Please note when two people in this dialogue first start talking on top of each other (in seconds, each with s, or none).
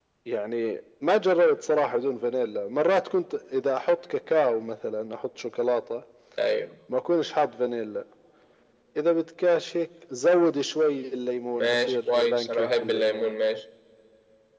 11.6 s